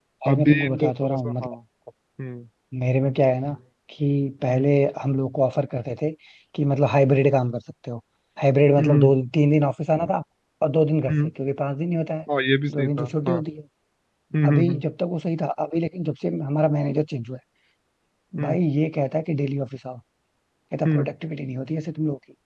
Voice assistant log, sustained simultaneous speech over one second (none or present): present